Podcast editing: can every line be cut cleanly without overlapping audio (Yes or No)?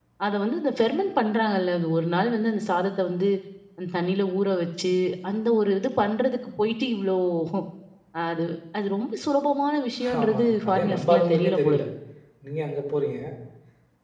No